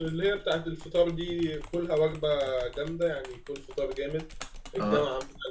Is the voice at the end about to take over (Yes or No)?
No